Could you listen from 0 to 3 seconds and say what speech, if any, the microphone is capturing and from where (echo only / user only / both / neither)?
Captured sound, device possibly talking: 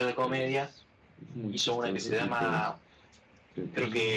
both